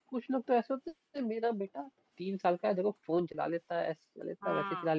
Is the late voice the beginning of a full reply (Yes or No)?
No